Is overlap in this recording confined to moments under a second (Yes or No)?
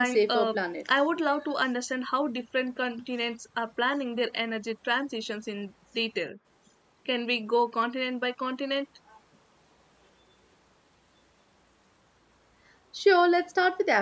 Yes